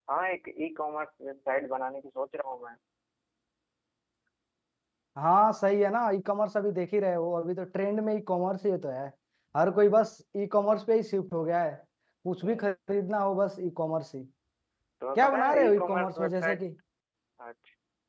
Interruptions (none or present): present